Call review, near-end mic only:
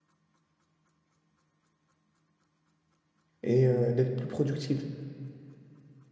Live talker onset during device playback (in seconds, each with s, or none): 3.4 s